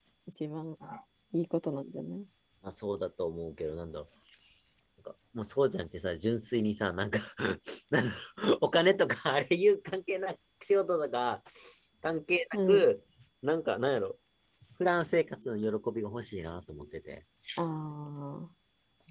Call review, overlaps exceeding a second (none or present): none